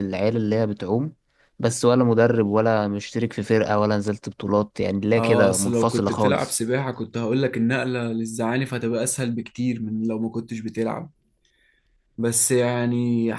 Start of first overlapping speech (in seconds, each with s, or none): 5.1 s